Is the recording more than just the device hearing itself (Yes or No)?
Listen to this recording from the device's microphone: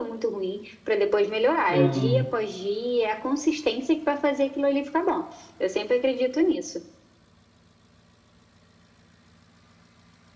Yes